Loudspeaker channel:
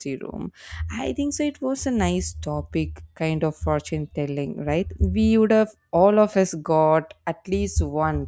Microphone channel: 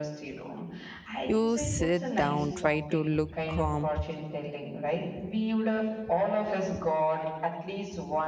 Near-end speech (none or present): present